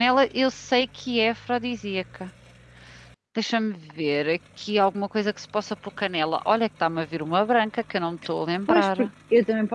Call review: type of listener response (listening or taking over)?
taking over